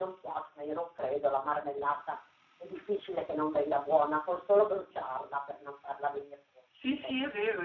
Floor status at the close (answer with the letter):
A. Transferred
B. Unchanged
A